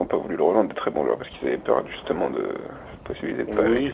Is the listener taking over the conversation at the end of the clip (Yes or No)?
Yes